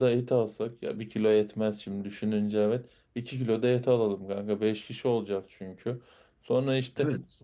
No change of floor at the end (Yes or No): Yes